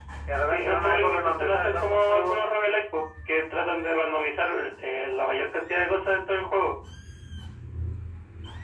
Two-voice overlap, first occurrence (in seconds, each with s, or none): 0.5 s